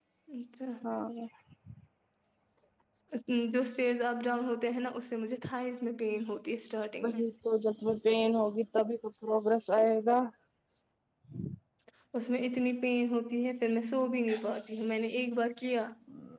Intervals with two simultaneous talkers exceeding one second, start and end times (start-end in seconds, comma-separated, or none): none